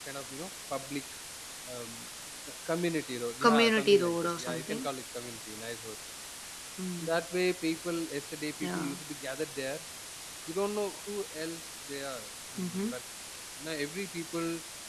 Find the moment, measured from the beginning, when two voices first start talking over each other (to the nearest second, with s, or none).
3 s